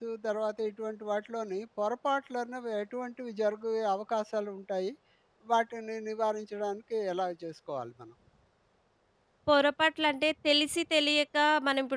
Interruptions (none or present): none